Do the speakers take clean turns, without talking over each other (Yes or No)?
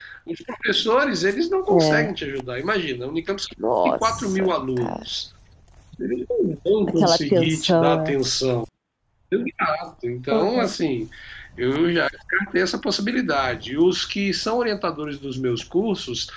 No